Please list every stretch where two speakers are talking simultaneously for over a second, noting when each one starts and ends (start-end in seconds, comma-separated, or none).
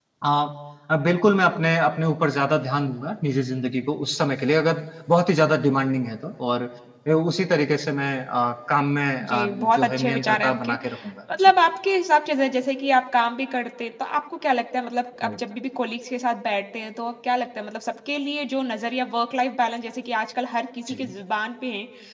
9.2-10.7